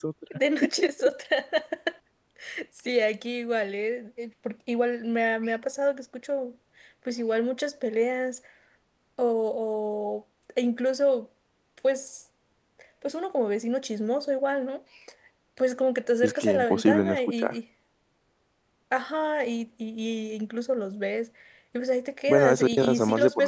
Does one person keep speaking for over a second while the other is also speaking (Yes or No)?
Yes